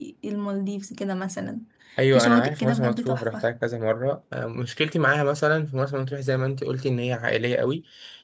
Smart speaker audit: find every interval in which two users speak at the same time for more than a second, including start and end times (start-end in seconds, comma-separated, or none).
2.1-3.5